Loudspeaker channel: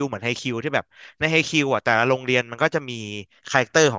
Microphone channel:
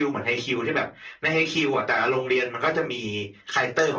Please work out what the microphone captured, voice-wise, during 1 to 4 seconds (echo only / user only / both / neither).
echo only